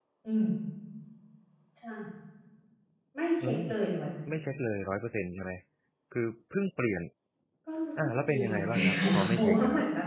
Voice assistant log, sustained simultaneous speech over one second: present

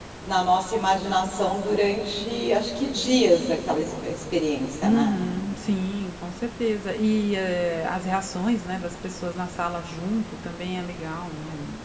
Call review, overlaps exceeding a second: none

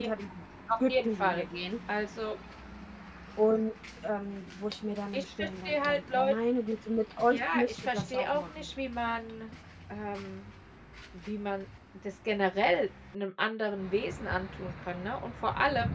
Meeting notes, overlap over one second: present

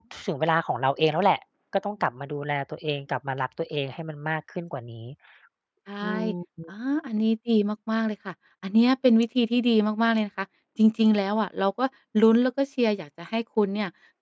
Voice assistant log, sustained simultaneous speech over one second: none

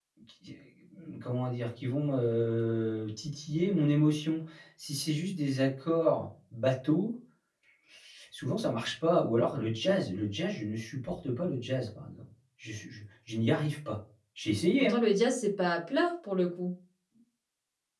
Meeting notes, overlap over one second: none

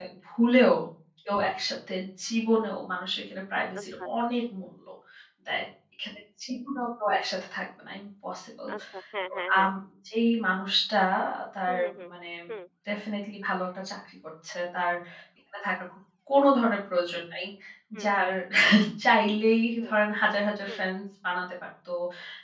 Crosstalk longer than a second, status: none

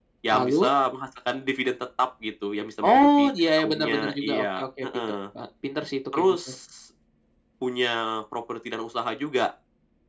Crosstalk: present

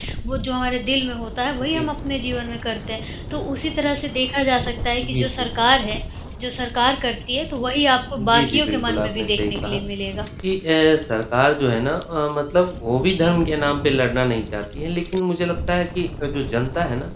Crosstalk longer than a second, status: present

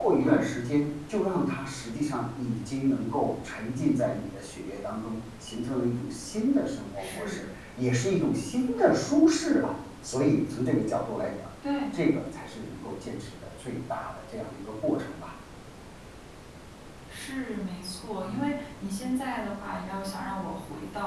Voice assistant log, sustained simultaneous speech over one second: none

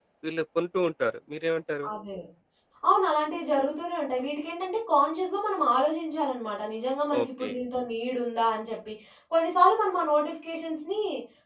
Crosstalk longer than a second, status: none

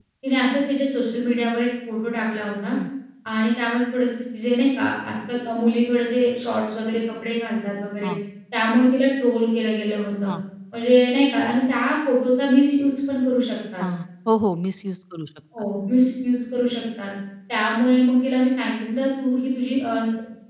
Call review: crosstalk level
none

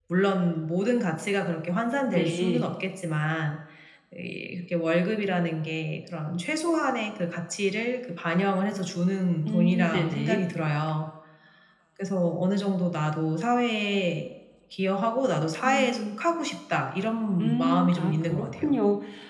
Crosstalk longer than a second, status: present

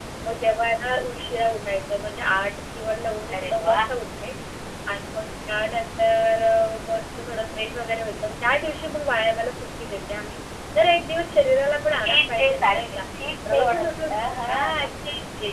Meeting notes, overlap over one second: present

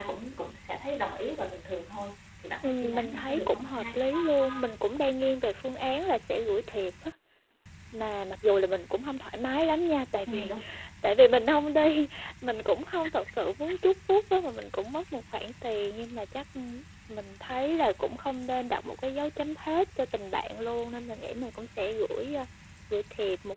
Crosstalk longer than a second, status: present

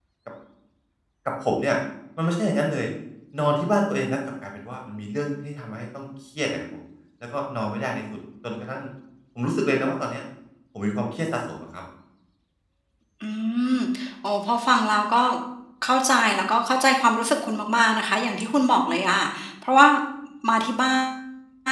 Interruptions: none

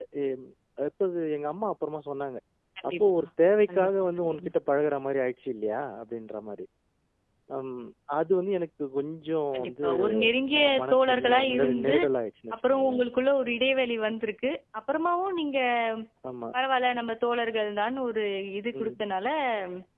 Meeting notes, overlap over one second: present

